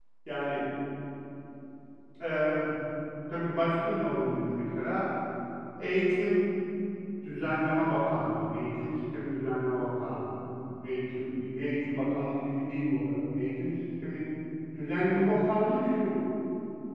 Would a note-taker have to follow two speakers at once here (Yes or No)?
No